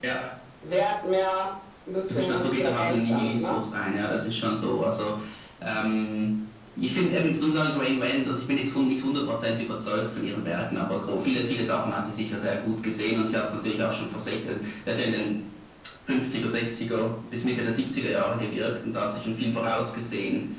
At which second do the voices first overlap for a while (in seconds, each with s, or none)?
2.0 s